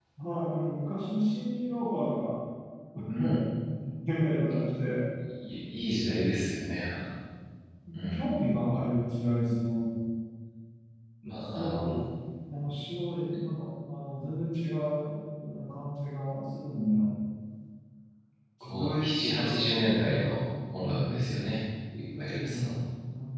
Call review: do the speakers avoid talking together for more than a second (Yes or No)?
No